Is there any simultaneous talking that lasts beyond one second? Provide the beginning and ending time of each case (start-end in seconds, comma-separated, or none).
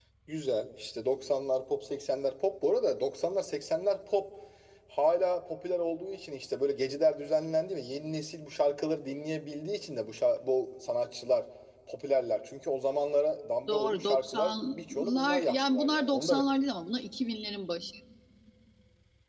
13.7-16.4